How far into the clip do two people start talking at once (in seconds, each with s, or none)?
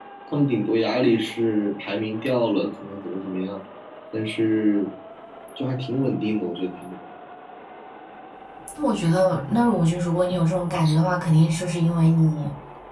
none